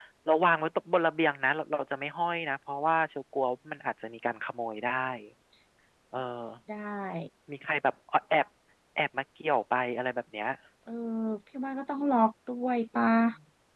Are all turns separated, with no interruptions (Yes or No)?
Yes